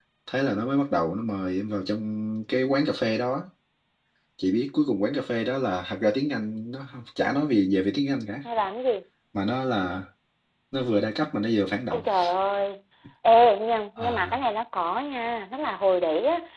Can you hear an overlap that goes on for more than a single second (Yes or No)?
No